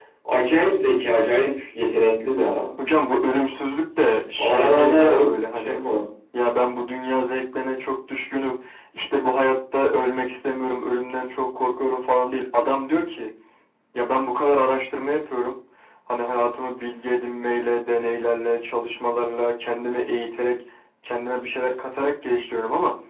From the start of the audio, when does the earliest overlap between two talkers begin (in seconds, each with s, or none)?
4.4 s